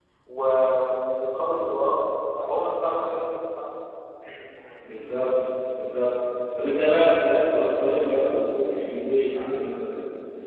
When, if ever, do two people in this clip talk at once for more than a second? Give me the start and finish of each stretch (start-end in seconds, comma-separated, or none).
none